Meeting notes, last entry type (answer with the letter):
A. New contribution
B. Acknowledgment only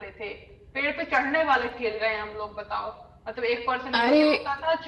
B